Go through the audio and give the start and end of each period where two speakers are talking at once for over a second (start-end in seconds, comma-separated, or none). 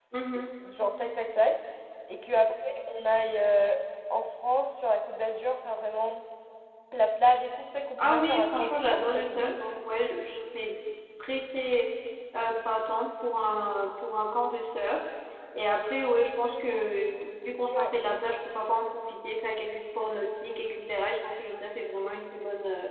8.0-9.5